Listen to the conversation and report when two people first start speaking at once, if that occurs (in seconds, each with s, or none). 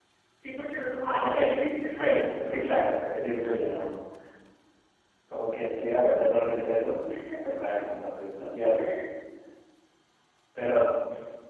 1.0 s